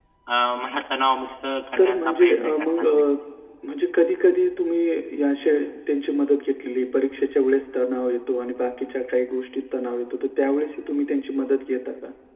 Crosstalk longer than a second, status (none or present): present